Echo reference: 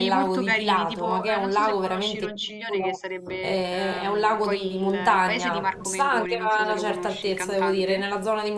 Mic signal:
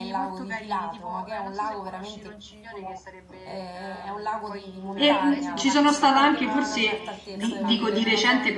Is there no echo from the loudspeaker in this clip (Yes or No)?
No